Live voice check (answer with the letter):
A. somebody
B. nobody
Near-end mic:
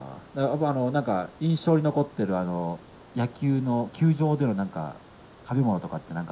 B